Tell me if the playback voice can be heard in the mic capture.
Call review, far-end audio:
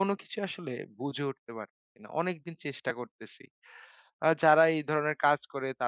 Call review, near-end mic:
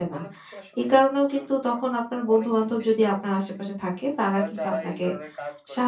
Yes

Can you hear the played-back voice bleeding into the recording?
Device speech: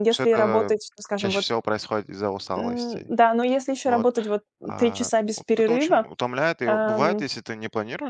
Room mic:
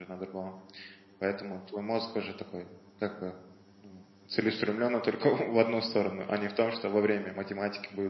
No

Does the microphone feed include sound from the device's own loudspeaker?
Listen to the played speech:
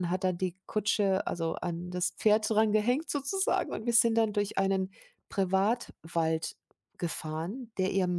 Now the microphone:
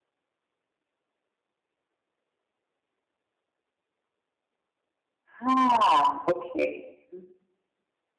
No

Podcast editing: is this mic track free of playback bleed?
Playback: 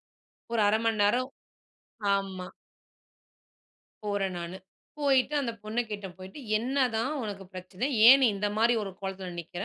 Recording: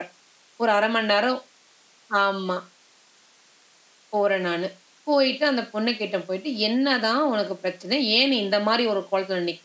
No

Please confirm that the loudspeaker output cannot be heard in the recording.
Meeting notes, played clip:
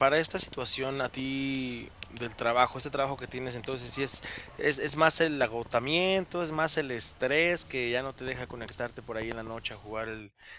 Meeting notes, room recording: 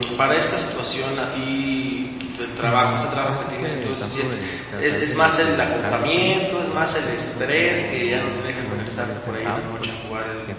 No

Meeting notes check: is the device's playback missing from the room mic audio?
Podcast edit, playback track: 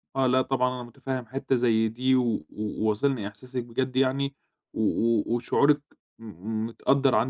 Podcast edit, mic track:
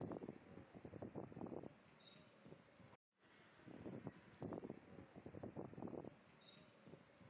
Yes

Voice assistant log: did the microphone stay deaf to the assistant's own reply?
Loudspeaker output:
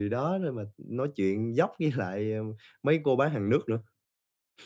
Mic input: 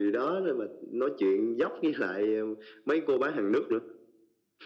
No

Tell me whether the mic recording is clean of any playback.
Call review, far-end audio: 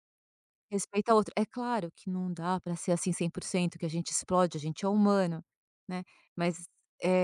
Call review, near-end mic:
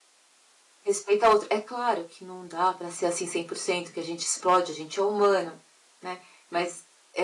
No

